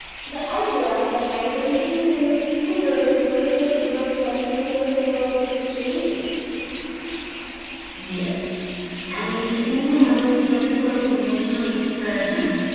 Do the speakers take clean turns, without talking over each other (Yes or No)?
Yes